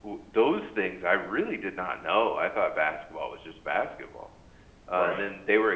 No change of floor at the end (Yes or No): Yes